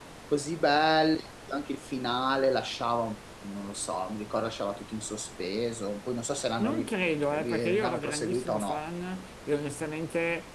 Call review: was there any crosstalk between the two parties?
Yes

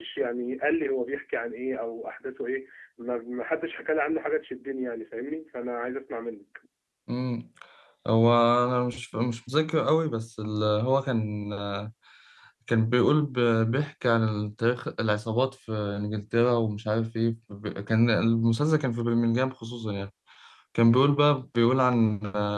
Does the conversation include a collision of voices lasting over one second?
No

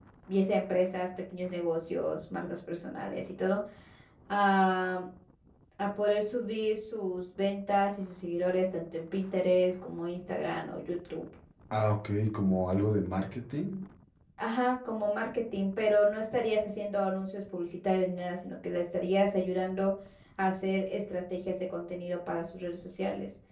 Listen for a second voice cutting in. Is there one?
No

